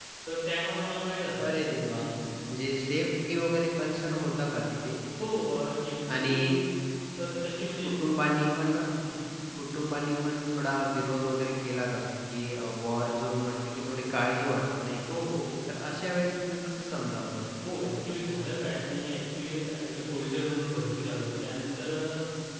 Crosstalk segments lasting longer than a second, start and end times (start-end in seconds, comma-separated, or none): none